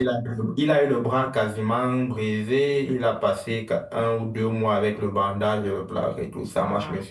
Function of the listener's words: listening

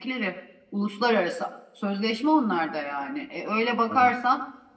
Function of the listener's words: listening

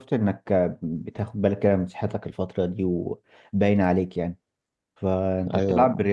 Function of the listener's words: listening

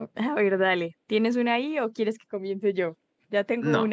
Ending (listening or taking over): taking over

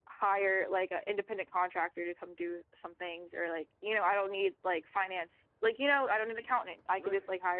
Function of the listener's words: taking over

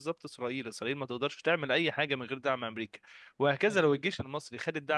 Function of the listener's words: listening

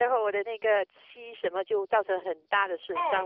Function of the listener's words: taking over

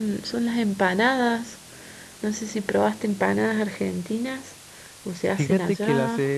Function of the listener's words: taking over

